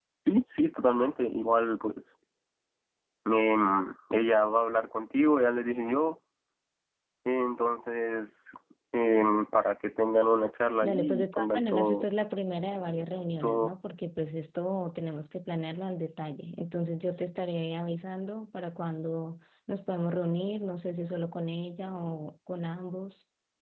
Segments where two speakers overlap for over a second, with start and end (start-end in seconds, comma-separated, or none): 10.8-12.0